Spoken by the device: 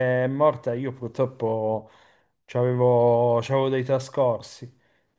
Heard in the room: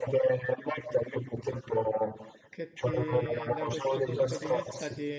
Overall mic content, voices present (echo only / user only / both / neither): both